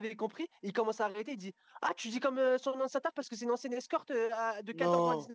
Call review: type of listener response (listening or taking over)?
listening